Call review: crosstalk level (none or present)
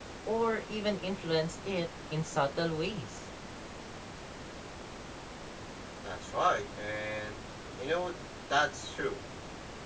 none